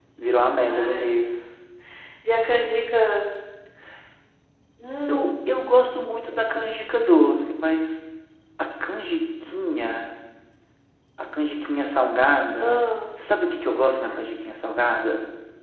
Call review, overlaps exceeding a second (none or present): none